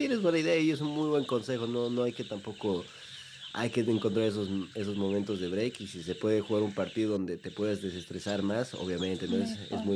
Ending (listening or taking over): listening